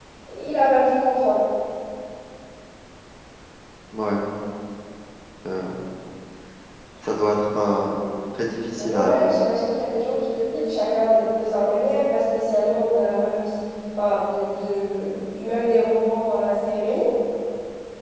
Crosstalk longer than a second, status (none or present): none